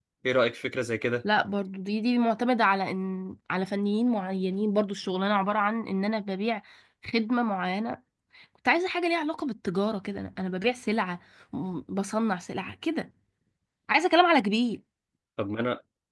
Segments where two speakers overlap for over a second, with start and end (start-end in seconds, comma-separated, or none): none